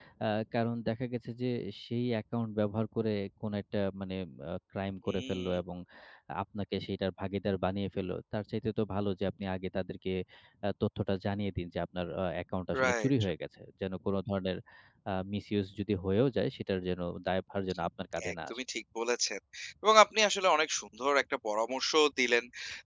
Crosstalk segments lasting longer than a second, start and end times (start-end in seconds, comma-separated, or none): none